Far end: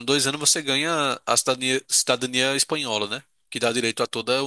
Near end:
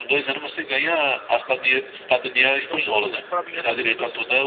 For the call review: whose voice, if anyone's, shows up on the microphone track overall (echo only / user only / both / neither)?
both